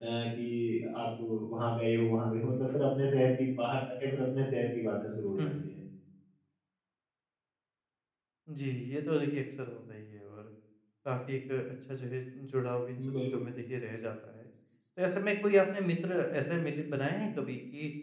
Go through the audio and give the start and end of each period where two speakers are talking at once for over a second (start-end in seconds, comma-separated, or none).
none